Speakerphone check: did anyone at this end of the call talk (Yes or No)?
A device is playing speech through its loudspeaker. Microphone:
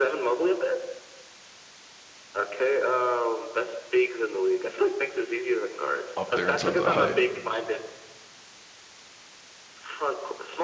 Yes